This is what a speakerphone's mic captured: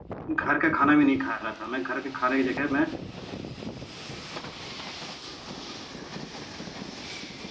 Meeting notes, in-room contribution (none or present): present